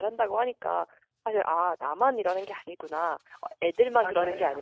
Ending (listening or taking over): listening